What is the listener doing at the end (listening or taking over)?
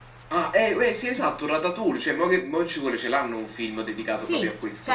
taking over